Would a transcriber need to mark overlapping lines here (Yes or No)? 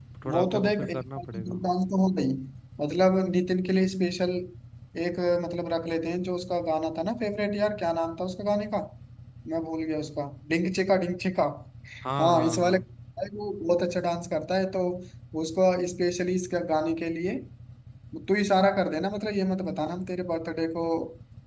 Yes